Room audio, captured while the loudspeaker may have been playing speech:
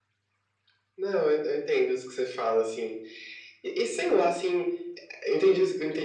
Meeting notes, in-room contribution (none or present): none